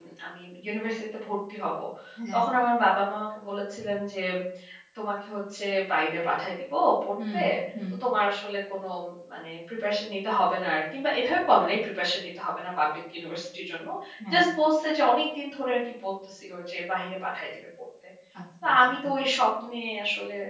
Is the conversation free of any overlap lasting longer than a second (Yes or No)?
Yes